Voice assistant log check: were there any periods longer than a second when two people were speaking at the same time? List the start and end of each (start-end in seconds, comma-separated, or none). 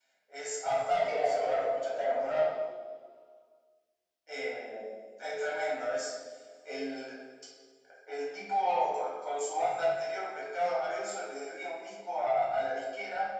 1.1-2.5